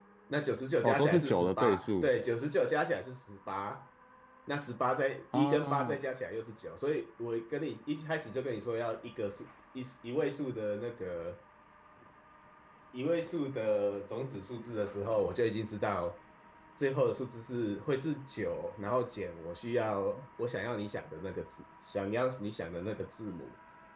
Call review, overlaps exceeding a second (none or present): present